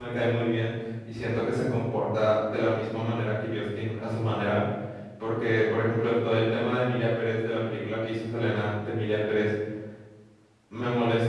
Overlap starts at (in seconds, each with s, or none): none